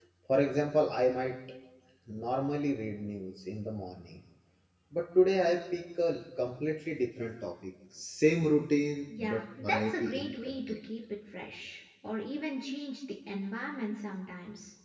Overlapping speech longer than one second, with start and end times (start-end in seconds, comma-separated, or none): 9.1-10.8